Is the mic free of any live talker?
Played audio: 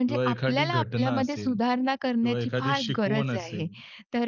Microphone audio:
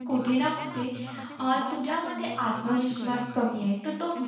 No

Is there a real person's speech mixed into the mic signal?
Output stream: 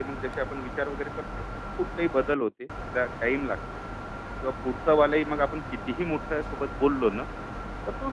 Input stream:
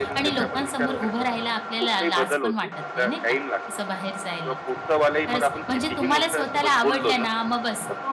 Yes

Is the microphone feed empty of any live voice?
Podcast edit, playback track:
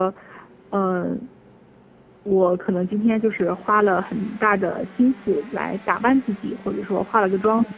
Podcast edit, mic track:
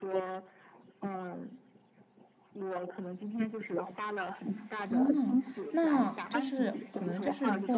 No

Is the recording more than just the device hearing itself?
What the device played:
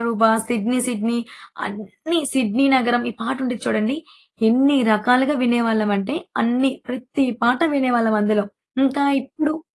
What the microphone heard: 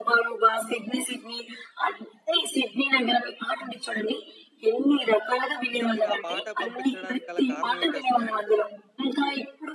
Yes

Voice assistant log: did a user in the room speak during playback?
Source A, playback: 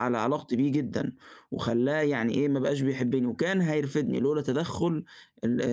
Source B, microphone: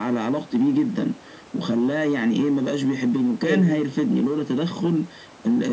Yes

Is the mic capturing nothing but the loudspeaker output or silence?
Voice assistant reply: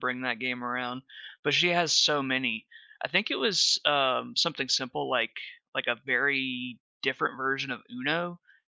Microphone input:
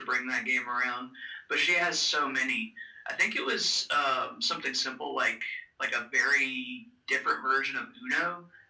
Yes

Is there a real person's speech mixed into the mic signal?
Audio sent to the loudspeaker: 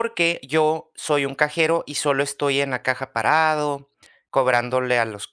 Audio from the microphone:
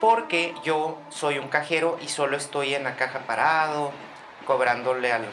No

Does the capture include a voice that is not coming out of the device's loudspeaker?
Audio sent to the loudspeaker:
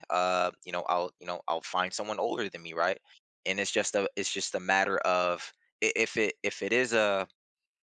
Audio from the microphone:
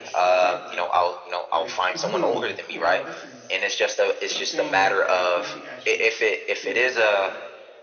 Yes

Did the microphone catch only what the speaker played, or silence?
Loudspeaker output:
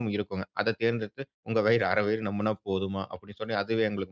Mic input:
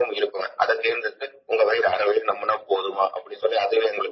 Yes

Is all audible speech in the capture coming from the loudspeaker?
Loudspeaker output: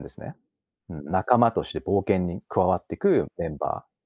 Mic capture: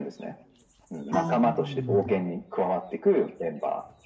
No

